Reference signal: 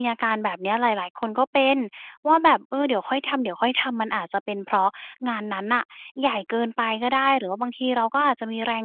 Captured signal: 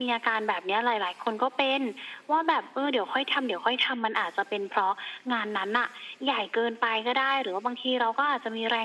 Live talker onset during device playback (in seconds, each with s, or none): none